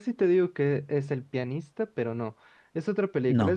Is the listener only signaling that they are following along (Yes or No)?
Yes